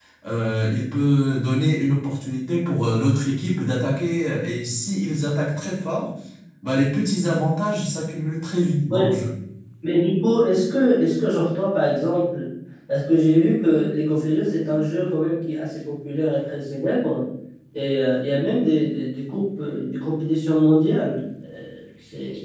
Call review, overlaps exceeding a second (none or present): none